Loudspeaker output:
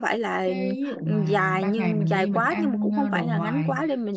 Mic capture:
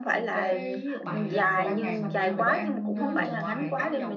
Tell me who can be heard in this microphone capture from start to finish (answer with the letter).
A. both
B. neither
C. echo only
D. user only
A